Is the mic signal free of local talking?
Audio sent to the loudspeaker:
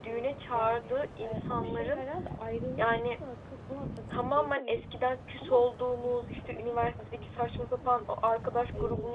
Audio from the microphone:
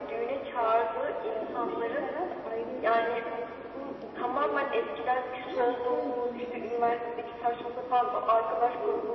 No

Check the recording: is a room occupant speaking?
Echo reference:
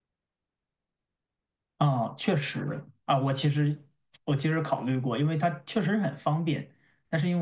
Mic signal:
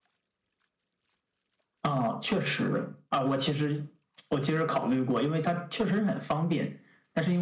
No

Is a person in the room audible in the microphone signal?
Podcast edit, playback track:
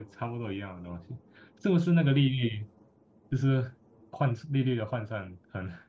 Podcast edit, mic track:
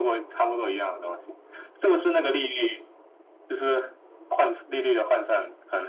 No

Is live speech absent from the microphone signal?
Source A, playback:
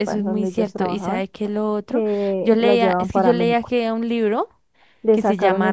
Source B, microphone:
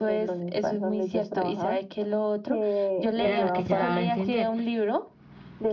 No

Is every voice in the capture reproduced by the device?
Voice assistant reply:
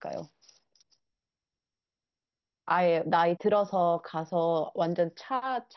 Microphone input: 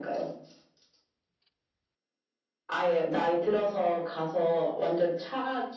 Yes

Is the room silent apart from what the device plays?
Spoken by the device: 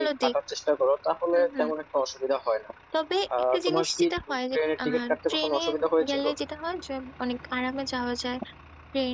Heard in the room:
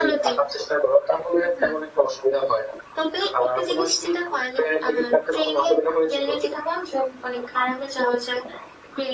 Yes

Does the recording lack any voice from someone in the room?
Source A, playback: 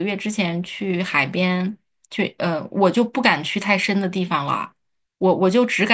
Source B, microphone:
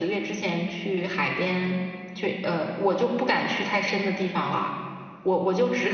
Yes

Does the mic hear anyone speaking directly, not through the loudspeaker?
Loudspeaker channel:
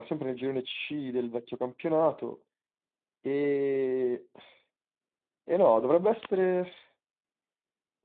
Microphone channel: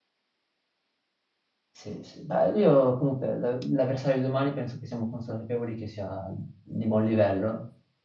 Yes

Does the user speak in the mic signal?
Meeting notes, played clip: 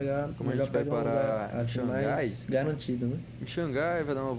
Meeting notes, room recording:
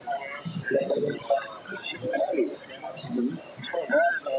No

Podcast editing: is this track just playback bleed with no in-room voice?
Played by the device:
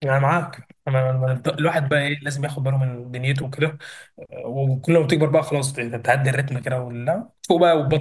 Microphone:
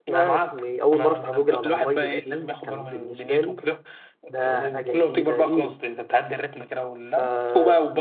No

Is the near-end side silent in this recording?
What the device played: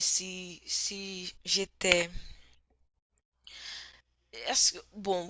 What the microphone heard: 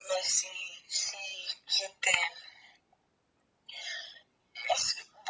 Yes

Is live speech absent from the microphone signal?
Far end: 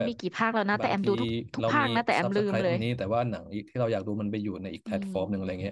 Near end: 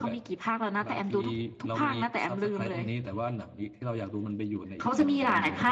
No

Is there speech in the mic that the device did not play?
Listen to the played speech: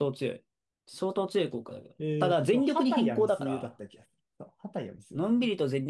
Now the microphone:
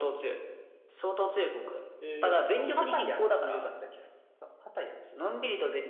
No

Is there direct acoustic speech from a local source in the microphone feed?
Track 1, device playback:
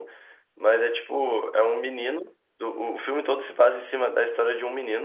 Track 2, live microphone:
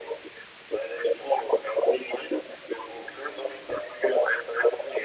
No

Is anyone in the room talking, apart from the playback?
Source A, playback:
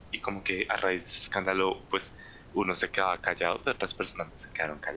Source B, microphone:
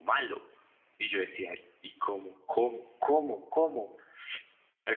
Yes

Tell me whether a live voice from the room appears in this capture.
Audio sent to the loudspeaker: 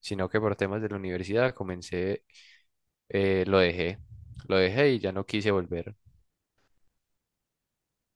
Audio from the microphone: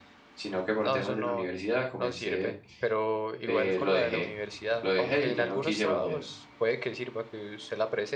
Yes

